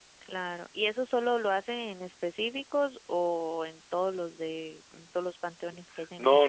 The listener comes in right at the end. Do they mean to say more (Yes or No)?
Yes